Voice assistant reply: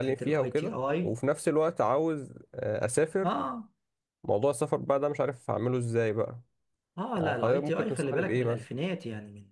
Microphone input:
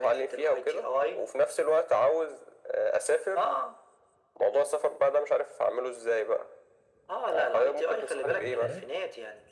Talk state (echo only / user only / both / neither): both